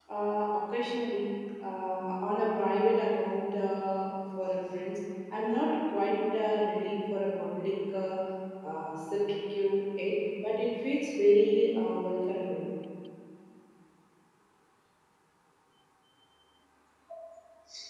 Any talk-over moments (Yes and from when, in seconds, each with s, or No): No